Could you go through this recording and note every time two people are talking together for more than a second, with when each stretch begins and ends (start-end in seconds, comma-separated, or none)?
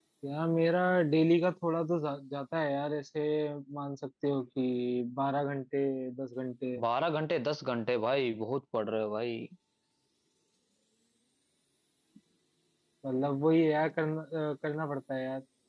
none